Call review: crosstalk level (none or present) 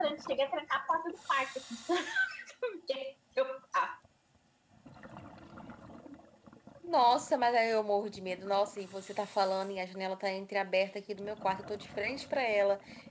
none